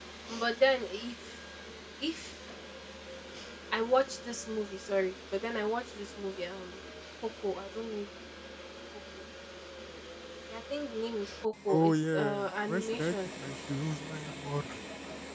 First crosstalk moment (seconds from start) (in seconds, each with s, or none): 11.7 s